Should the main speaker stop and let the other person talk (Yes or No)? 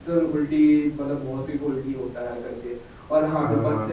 No